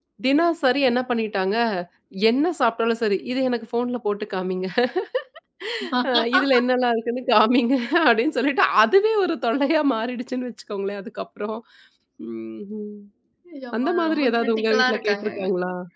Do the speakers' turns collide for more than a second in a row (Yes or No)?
Yes